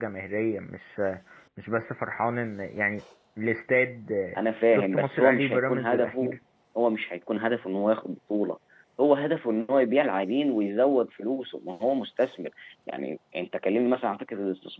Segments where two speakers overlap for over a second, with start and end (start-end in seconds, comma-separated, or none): 4.7-6.4